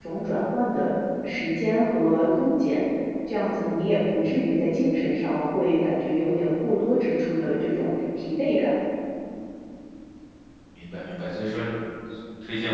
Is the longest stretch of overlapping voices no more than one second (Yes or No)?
Yes